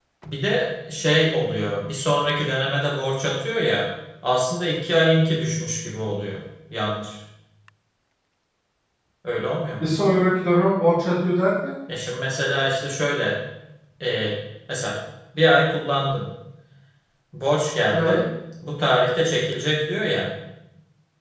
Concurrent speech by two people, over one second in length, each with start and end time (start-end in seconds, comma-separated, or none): none